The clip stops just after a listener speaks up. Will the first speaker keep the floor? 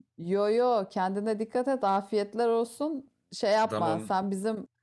Yes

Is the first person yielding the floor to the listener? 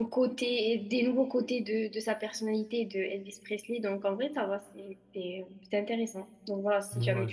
Yes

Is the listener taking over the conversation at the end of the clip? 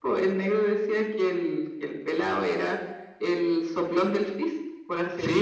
Yes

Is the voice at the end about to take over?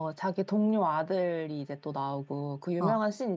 No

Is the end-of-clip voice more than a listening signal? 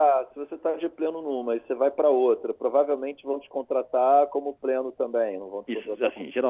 Yes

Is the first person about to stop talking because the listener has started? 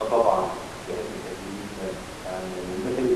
No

